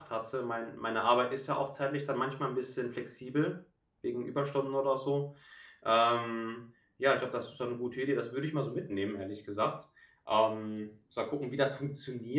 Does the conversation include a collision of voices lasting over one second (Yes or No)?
No